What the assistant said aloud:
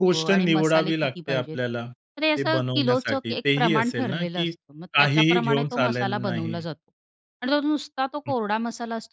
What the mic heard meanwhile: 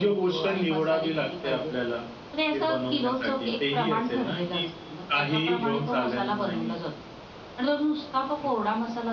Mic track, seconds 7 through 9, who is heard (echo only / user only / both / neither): echo only